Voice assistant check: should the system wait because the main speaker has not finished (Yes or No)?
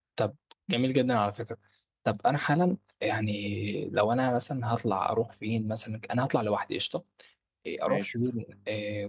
Yes